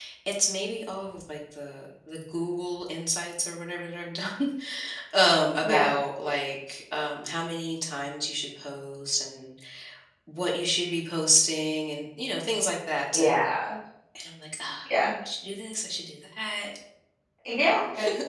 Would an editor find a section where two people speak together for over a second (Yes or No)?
No